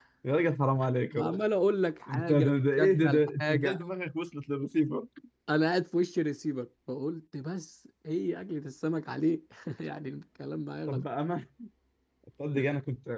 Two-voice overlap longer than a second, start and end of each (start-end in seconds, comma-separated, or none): 2.1-3.8